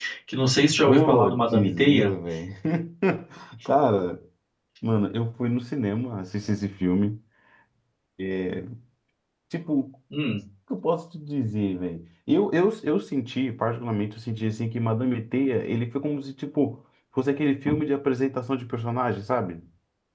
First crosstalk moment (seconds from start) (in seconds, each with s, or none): 0.9 s